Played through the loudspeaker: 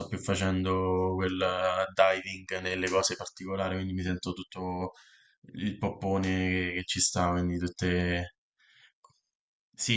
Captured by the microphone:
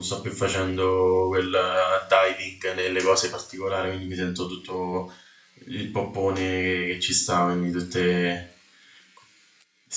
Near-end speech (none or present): none